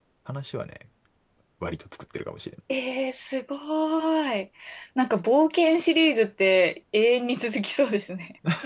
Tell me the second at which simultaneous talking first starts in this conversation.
none

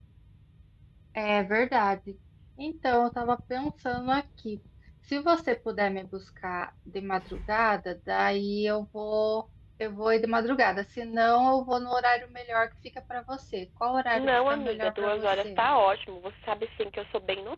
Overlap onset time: 14.1 s

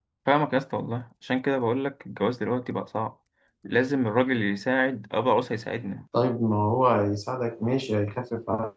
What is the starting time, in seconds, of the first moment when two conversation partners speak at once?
none

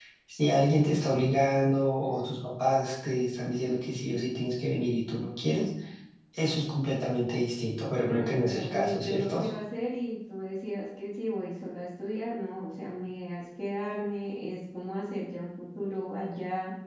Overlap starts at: 8.0 s

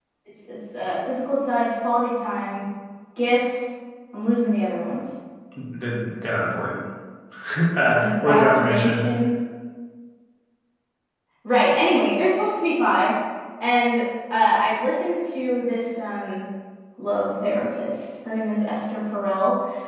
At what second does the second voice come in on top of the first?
7.9 s

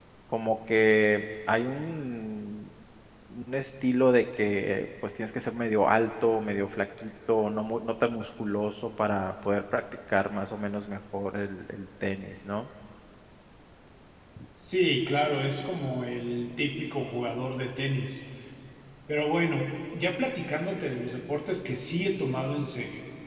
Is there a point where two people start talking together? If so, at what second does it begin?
none

